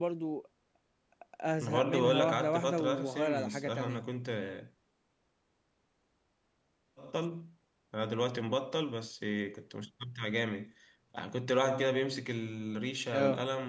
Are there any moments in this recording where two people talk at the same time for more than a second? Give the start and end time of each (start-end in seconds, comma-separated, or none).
1.6-4.0